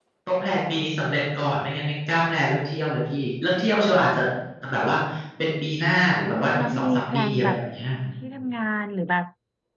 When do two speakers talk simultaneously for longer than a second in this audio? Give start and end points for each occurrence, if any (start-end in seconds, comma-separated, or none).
6.1-7.6